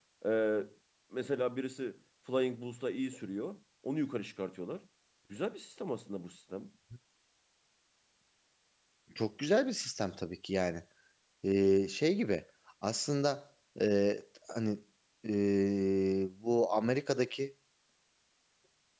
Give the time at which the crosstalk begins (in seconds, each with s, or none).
none